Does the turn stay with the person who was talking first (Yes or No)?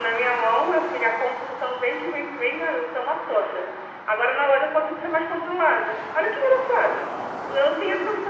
Yes